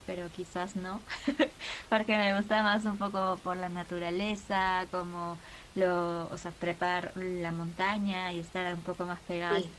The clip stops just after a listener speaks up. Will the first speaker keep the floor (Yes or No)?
Yes